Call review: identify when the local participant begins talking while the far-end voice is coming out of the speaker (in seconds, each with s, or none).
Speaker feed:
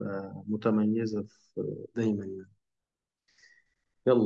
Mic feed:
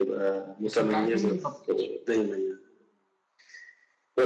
0.7 s